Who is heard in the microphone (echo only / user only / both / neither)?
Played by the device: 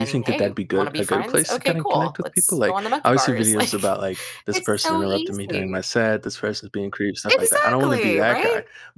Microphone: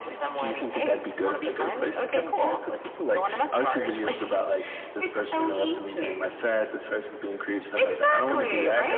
echo only